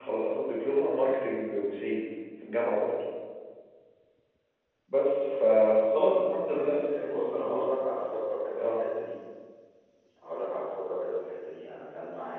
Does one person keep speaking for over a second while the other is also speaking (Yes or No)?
Yes